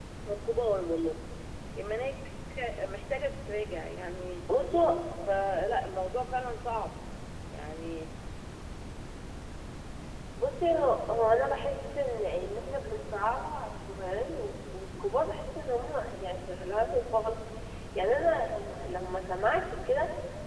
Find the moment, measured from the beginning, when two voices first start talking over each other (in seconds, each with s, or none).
none